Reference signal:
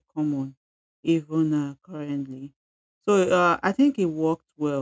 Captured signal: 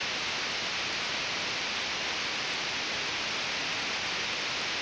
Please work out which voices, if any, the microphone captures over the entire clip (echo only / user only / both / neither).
neither